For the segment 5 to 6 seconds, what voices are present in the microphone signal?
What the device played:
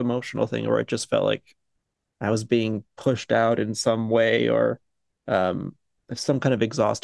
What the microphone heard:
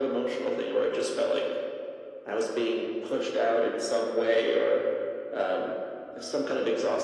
echo only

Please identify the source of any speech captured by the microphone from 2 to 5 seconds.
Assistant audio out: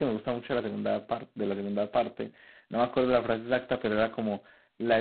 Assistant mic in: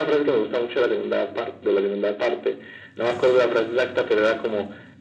echo only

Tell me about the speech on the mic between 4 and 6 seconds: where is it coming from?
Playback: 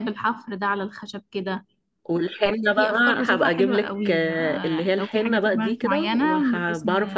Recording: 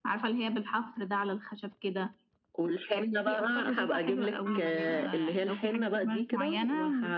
both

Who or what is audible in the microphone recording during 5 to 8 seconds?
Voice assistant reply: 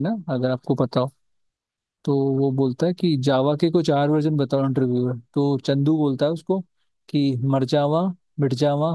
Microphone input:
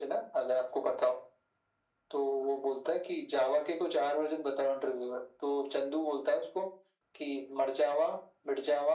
echo only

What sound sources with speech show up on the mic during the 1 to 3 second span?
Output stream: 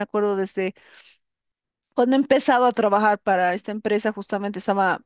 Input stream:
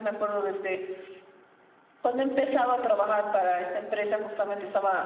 echo only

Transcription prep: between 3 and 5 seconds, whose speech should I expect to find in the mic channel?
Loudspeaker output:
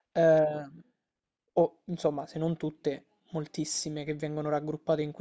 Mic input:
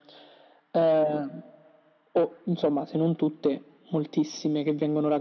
echo only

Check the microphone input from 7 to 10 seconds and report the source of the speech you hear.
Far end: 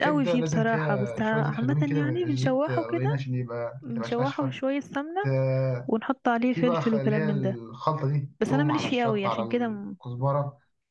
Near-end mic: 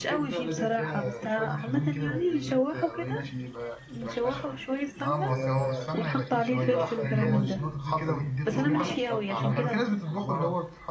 both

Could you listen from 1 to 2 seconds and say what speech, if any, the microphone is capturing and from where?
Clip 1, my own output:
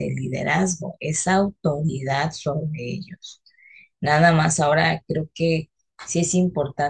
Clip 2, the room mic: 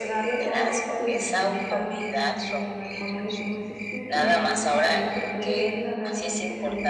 both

